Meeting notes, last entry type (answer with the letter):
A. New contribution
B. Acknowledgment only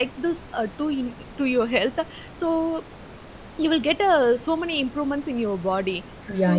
A